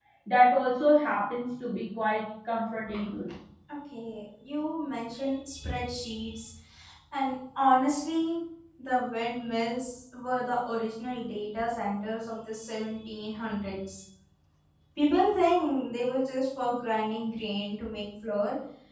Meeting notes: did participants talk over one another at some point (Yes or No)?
No